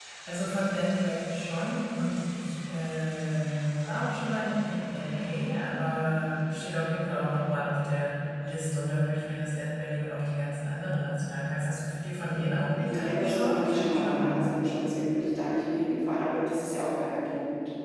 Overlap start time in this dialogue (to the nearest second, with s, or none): 12 s